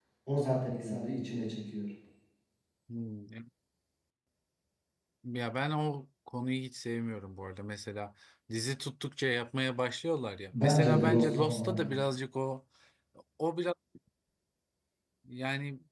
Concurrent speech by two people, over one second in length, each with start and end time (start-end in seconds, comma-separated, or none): 10.6-12.0